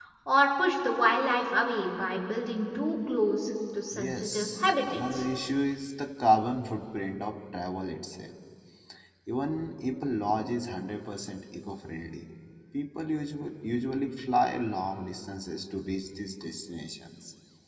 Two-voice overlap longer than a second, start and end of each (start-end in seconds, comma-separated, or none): 3.9-5.2